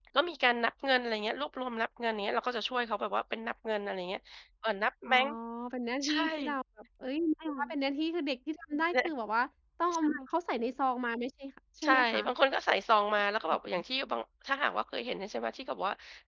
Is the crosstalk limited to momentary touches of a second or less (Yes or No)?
Yes